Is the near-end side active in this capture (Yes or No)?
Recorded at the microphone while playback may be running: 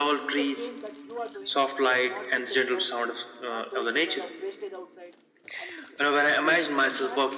Yes